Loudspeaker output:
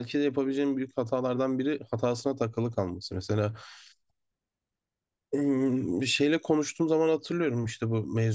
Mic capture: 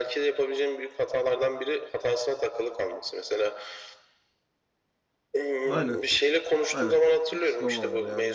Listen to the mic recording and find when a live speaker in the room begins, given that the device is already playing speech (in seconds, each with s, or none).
5.6 s